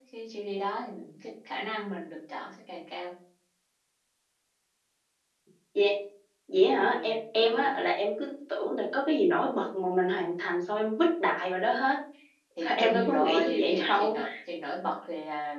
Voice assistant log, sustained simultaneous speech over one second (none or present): present